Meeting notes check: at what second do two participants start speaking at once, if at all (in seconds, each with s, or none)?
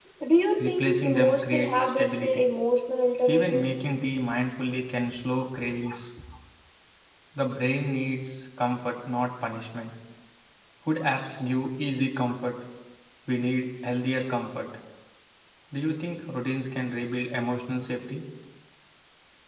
0.7 s